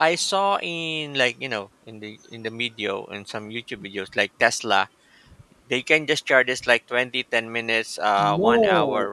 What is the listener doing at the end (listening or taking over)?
taking over